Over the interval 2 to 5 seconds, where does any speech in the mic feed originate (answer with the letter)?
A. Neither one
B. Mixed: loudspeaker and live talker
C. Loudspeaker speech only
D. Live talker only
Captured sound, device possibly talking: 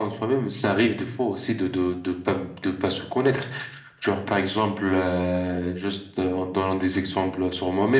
C